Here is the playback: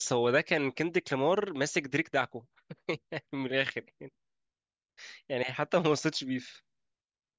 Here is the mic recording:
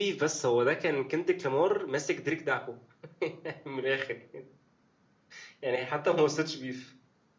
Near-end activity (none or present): none